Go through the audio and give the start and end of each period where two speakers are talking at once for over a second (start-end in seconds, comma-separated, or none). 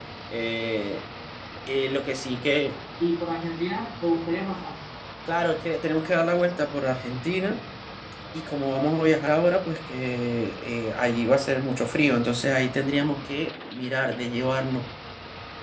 none